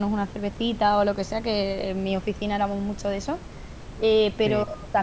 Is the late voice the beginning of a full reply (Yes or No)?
No